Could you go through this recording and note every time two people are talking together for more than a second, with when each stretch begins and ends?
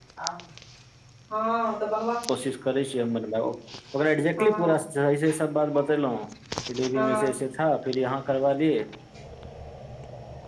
none

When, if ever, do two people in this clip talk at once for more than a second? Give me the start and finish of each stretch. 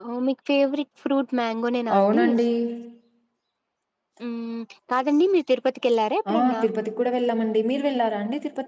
none

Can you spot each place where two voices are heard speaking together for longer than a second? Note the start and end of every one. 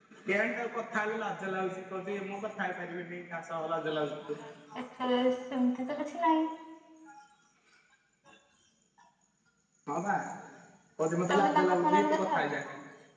11.3-12.6

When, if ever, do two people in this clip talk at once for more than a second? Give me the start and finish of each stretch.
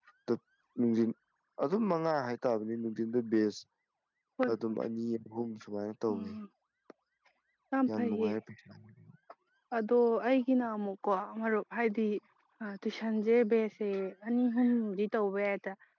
none

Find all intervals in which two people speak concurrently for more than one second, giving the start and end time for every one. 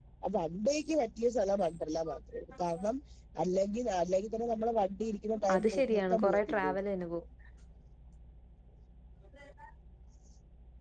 5.5-6.8

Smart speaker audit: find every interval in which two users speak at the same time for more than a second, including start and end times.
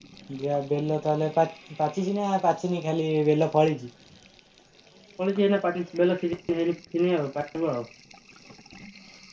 none

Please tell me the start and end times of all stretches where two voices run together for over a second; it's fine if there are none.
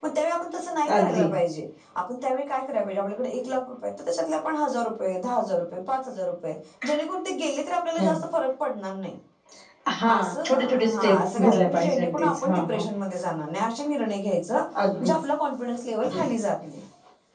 10.1-12.8

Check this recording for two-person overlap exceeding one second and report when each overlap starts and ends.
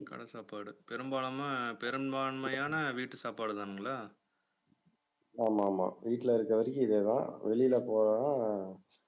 none

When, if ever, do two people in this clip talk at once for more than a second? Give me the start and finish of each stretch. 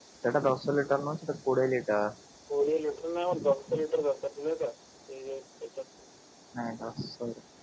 none

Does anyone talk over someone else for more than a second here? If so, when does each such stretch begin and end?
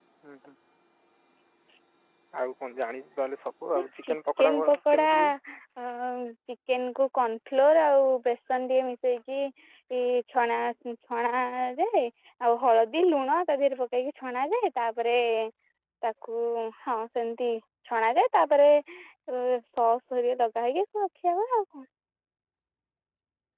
3.8-5.3

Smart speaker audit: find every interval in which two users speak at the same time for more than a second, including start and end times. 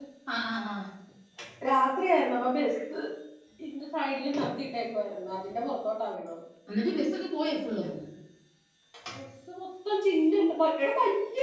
none

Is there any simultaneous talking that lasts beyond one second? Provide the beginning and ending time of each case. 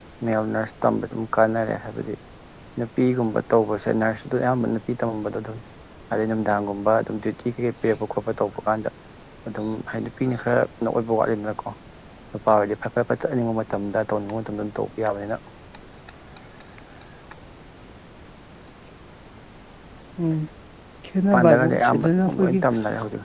21.3-22.6

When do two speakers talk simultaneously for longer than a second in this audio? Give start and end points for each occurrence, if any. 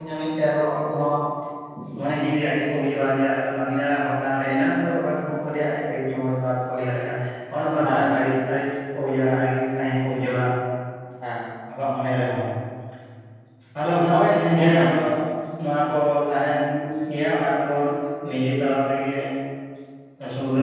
13.8-15.2

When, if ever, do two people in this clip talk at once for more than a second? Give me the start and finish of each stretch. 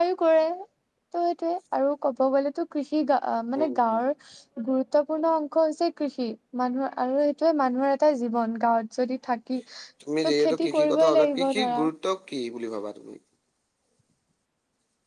10.2-11.8

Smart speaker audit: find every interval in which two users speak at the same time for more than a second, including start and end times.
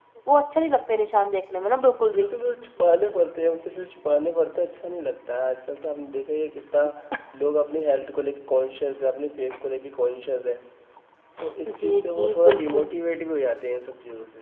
11.7-12.9

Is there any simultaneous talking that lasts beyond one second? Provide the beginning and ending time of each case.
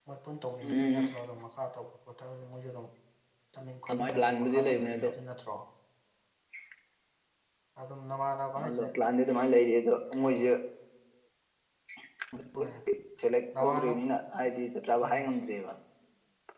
3.9-5.1

